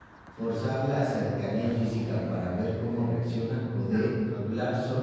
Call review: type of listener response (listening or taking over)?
listening